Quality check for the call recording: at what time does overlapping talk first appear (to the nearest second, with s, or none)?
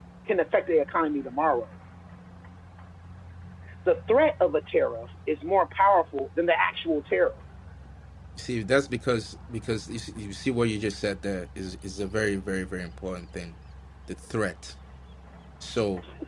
none